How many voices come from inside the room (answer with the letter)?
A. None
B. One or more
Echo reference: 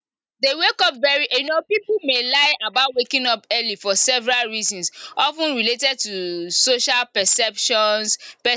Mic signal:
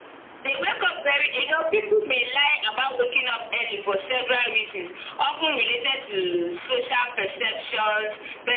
A